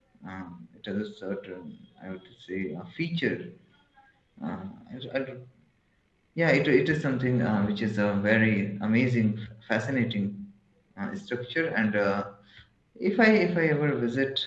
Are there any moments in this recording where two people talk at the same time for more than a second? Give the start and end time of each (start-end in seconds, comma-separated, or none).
none